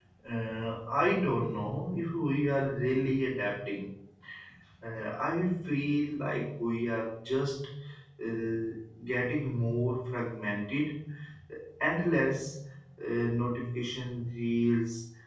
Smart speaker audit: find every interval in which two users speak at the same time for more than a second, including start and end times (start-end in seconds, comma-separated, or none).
none